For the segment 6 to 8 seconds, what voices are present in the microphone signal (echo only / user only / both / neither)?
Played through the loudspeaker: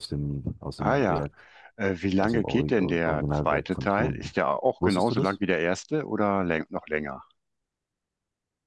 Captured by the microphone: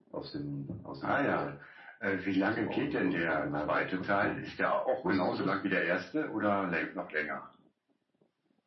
echo only